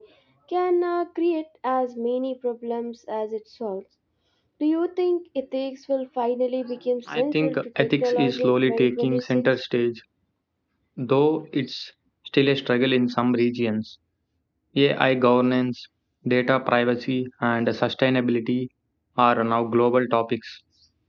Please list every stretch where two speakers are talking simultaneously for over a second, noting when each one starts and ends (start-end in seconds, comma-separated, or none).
7.1-9.4